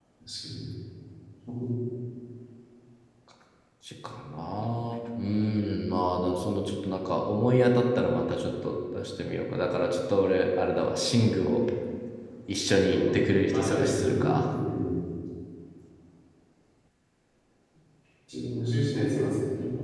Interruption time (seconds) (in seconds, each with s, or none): 12.9 s